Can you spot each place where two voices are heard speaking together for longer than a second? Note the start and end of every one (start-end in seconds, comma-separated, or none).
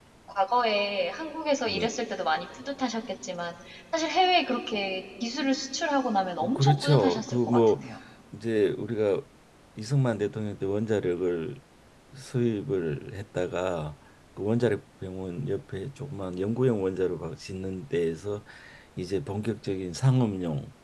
6.4-7.8